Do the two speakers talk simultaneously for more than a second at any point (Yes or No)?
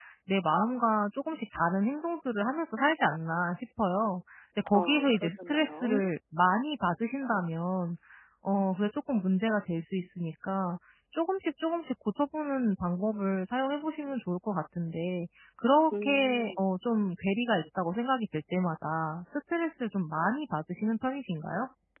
Yes